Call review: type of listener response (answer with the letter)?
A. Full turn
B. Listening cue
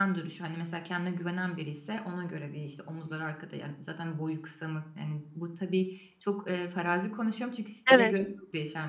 B